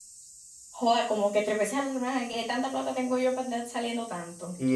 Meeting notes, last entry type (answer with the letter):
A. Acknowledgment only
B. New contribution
B